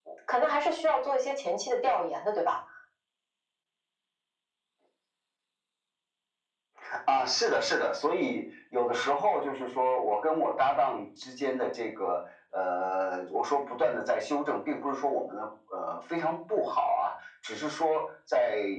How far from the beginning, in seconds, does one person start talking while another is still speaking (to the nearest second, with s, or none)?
none